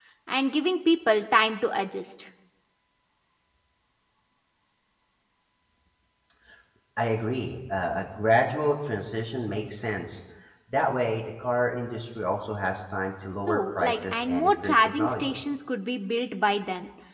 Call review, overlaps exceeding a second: present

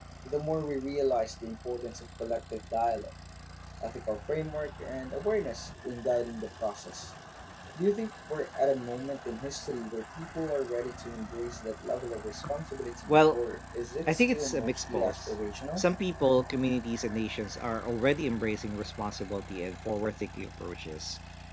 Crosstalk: present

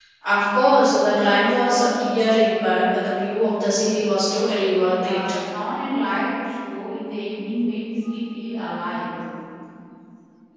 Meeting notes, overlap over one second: none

